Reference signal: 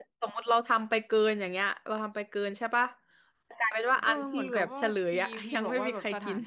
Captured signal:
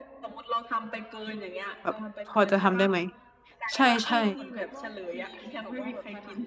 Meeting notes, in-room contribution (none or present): present